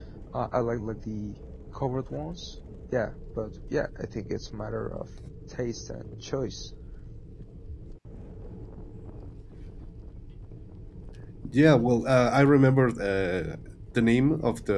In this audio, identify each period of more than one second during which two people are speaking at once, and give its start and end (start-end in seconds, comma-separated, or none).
none